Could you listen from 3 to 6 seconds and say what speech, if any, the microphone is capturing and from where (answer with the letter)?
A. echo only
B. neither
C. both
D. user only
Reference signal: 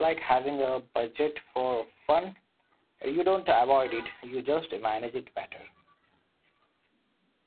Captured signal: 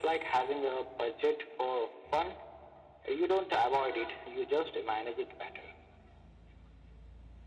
A